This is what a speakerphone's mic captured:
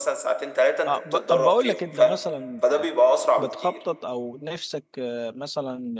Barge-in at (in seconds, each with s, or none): 0.9 s